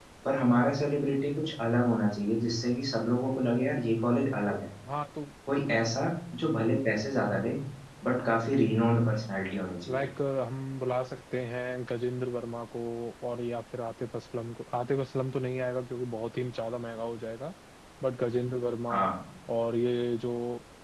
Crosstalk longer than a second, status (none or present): none